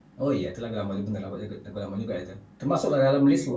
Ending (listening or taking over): listening